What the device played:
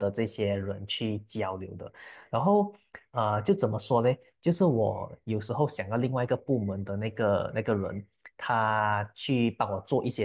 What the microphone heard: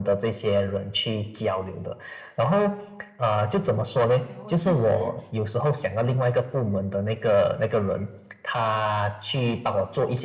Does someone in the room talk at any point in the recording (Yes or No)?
Yes